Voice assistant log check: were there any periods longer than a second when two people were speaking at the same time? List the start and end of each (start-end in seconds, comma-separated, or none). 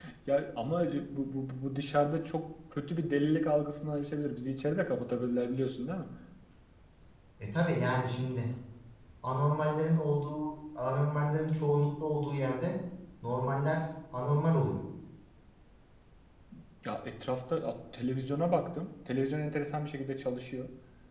none